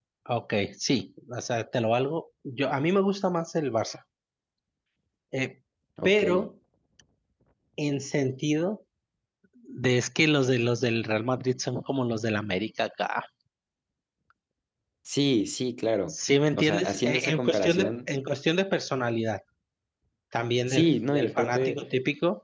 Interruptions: present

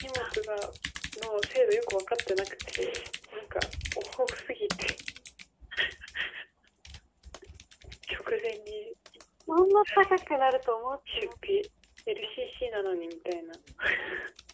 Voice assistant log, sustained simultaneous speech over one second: none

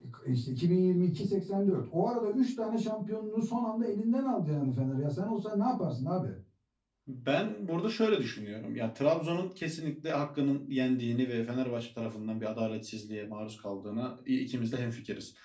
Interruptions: none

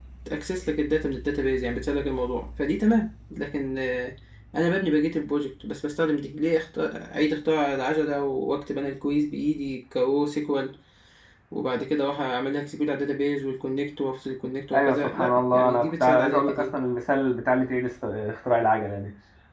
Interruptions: present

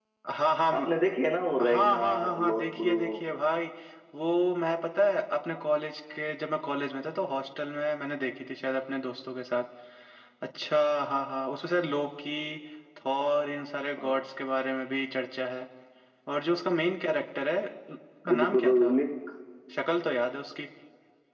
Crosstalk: present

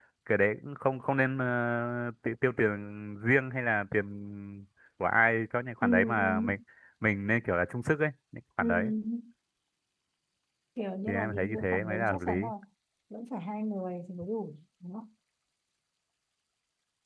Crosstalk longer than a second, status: present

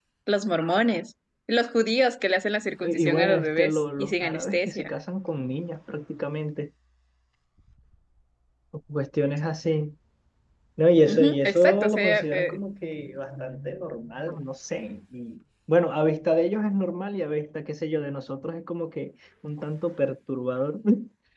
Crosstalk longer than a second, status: present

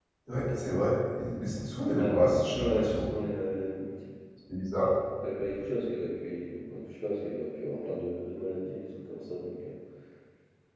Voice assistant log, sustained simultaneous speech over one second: none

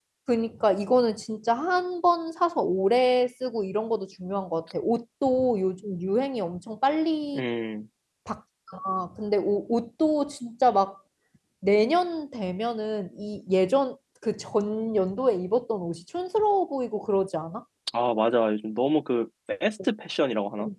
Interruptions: none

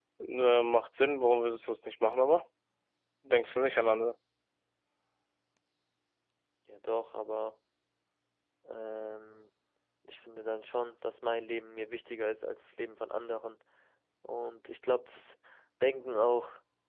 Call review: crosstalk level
none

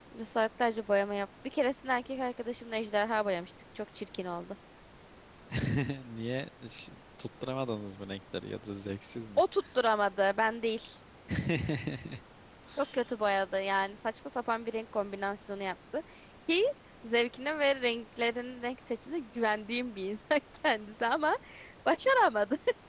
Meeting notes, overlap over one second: none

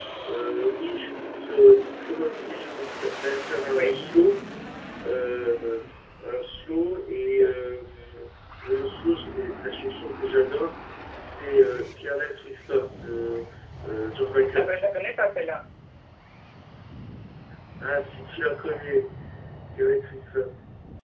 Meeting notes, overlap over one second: none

